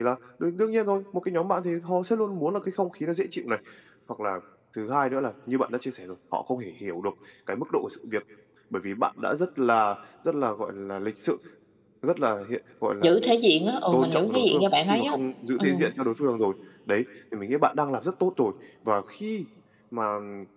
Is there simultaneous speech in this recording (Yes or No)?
Yes